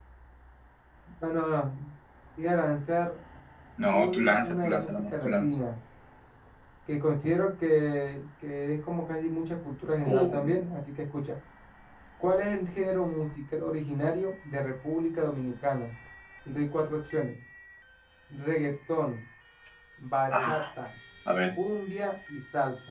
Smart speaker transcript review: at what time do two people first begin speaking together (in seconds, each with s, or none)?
3.9 s